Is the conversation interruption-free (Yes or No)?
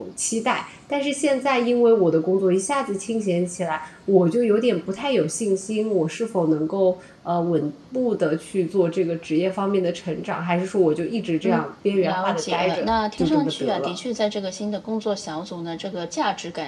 No